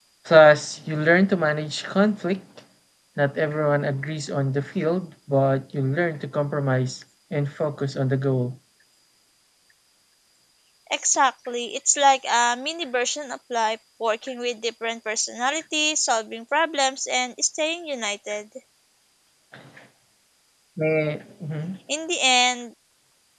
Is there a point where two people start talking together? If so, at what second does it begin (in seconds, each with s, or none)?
none